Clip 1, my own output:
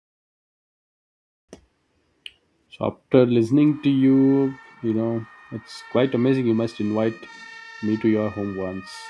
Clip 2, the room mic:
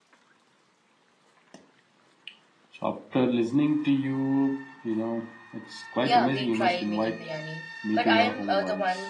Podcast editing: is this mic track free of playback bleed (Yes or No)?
No